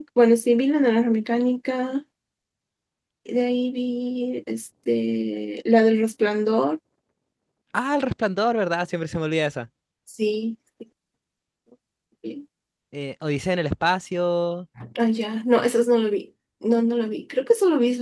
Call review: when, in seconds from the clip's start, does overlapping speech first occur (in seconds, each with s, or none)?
none